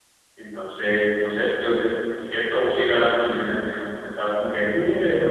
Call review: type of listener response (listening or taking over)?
taking over